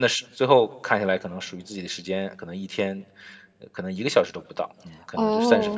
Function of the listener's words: taking over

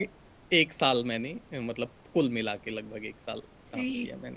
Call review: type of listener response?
taking over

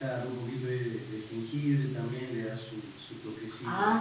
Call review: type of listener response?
taking over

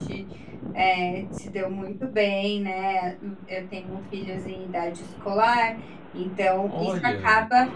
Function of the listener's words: listening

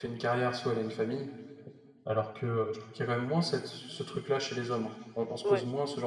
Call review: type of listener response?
taking over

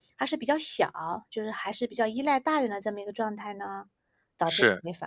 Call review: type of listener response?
taking over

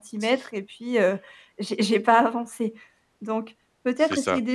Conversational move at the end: listening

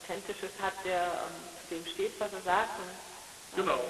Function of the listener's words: taking over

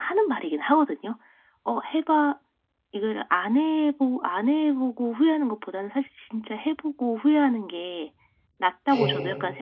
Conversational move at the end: listening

